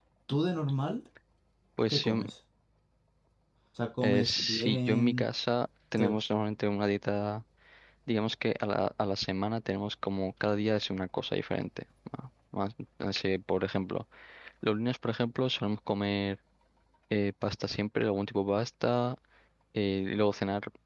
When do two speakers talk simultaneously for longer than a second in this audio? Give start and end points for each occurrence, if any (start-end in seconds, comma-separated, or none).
4.0-5.2